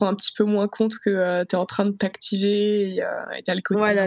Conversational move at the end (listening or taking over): taking over